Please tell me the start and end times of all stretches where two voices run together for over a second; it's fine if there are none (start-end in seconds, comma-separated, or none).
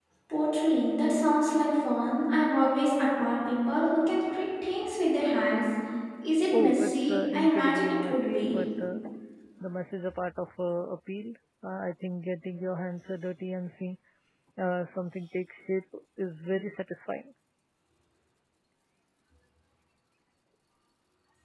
6.5-8.6